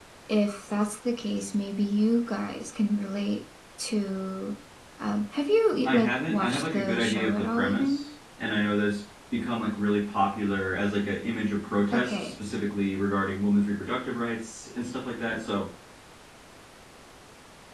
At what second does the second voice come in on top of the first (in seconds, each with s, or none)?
5.8 s